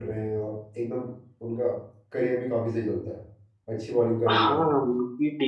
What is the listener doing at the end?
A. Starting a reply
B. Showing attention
A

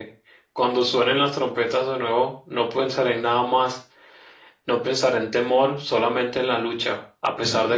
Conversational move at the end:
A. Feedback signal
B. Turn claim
A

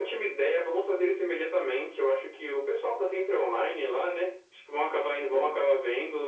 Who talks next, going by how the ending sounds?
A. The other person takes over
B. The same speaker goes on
B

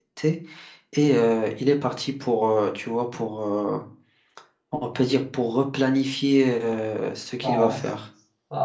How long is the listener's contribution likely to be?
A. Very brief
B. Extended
B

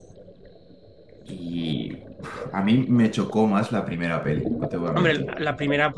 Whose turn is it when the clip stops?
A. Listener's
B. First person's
A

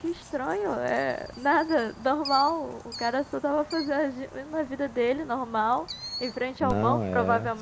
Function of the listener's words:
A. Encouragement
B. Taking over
A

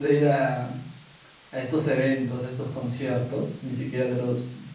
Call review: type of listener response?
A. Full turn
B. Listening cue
B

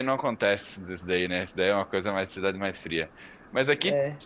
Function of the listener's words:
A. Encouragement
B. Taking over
A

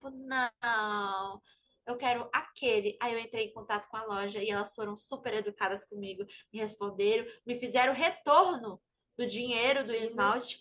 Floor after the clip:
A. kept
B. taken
A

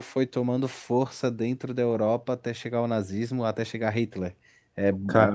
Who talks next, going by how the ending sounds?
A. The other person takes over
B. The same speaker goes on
B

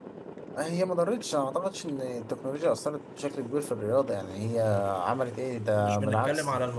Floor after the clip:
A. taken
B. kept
A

